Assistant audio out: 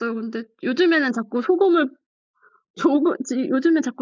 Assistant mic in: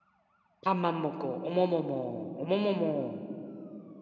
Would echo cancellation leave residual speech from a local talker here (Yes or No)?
Yes